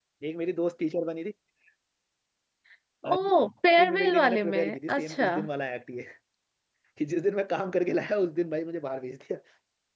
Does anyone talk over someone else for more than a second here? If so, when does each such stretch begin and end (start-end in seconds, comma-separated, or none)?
3.8-5.3